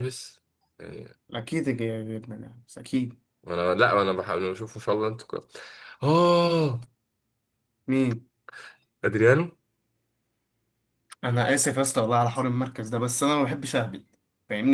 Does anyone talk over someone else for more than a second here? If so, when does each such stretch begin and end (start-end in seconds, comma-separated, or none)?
none